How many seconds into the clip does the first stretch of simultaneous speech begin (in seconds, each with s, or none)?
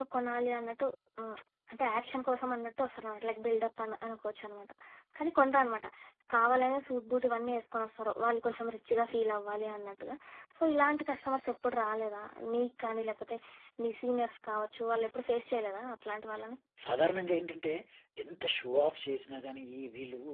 none